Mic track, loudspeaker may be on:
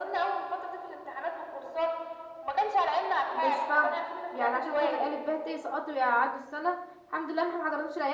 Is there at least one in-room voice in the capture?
Yes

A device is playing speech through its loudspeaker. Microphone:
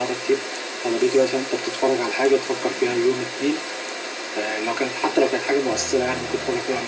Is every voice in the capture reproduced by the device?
No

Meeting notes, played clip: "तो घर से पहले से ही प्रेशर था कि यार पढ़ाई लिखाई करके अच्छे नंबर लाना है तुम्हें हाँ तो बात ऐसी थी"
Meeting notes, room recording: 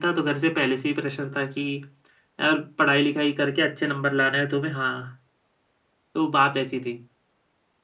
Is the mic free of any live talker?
Yes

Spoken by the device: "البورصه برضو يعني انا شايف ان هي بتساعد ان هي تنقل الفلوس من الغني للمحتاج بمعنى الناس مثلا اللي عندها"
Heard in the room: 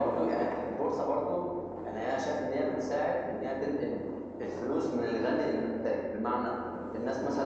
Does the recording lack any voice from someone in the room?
Yes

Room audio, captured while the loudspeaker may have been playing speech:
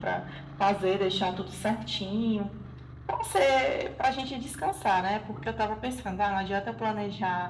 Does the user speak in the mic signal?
No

